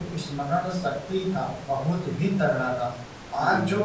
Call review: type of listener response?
listening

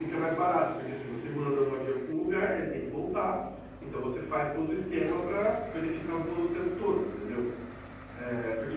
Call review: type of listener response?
listening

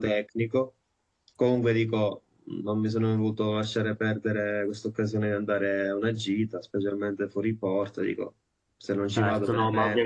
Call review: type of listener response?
taking over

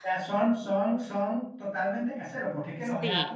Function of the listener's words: listening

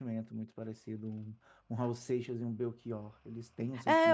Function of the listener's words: taking over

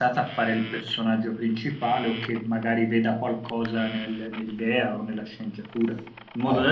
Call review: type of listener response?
listening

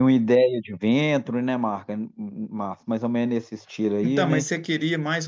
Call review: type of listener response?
taking over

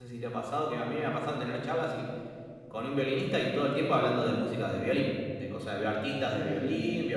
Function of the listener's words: listening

